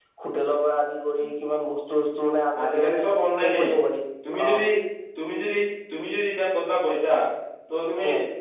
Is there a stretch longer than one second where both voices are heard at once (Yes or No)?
No